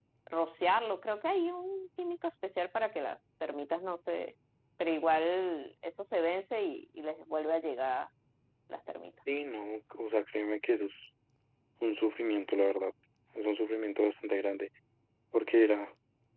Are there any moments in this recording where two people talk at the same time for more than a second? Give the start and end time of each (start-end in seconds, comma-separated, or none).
none